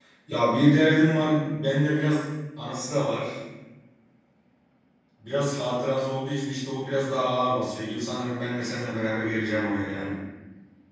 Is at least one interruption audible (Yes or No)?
No